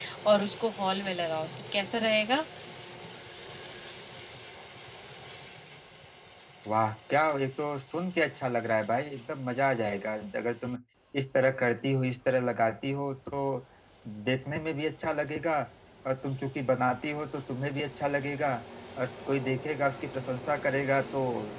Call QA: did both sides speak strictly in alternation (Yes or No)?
Yes